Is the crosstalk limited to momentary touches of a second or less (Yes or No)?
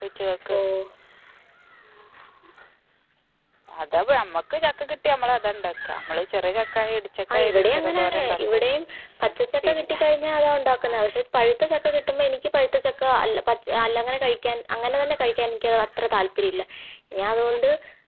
No